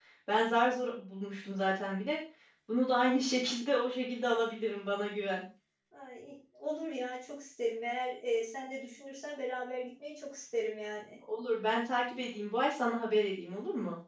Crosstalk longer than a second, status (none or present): none